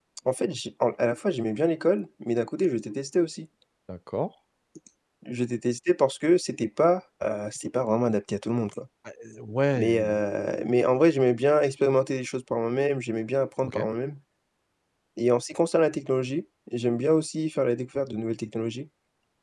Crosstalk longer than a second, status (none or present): none